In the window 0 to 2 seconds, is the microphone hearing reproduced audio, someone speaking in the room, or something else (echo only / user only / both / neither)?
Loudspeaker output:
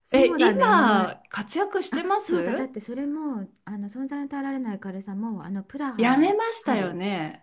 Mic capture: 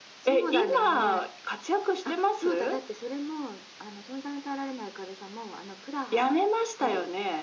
echo only